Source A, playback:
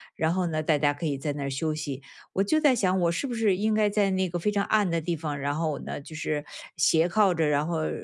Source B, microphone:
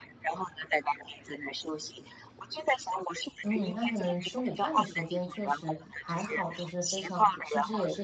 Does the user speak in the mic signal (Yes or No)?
Yes